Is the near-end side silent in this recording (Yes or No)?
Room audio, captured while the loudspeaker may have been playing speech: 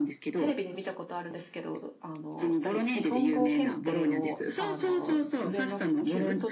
No